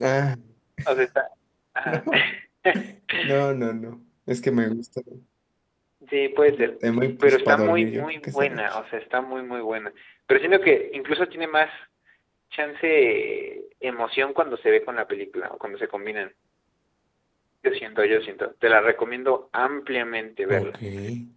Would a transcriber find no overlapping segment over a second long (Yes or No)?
No